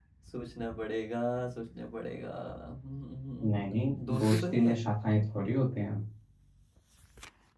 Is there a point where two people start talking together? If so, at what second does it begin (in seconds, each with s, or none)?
3.5 s